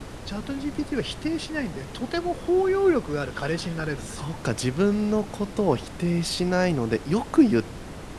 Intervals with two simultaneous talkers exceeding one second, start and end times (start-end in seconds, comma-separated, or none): none